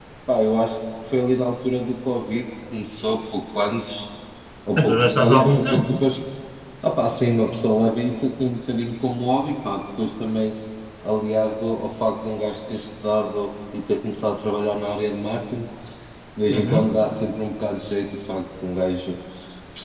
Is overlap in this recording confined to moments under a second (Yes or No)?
No